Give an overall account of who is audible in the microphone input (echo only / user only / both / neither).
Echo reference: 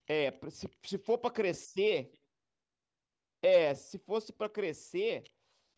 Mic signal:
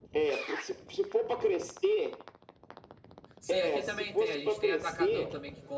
both